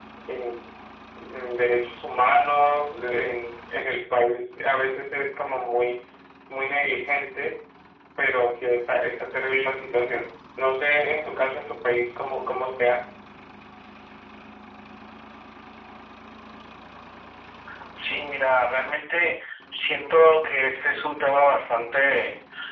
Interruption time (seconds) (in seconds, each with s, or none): none